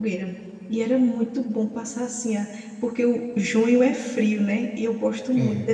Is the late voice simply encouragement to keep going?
Yes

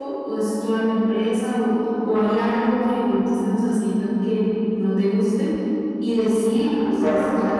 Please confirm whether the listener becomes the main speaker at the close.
No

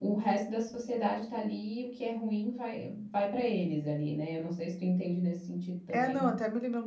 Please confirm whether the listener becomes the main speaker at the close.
Yes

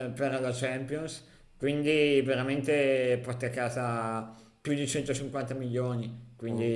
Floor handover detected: No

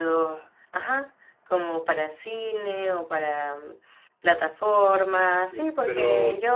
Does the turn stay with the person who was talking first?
No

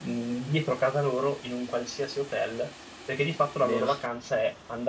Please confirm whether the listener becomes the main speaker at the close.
No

